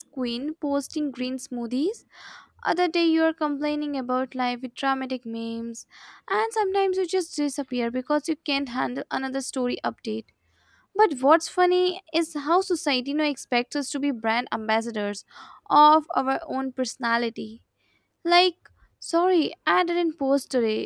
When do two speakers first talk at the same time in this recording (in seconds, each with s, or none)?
none